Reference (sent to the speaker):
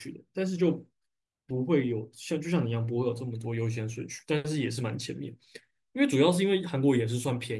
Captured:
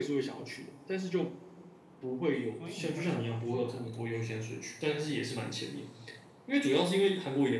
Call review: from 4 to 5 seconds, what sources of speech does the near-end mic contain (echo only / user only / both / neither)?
both